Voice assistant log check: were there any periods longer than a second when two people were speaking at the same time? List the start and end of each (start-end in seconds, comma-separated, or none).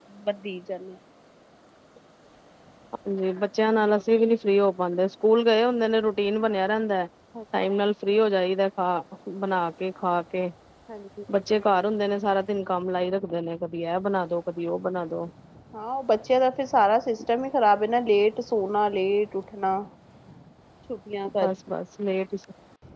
none